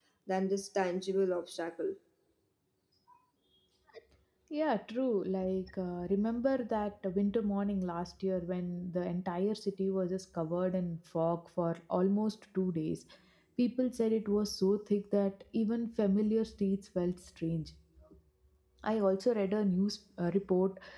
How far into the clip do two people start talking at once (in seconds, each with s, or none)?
none